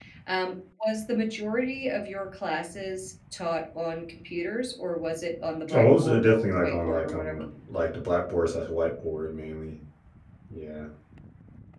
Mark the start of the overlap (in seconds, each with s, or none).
5.7 s